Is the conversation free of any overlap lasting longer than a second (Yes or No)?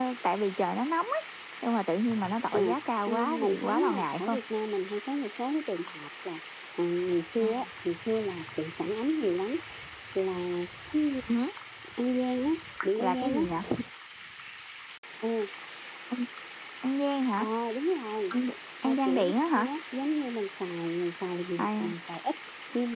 No